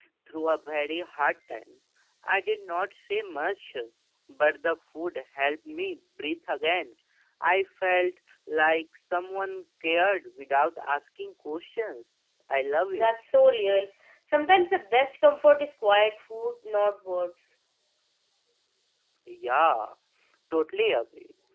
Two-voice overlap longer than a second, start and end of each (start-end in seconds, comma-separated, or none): none